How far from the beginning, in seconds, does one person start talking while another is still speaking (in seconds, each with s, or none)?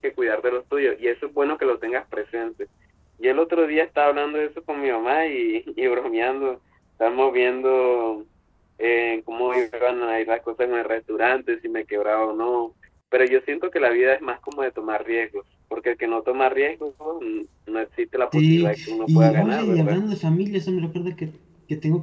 18.3 s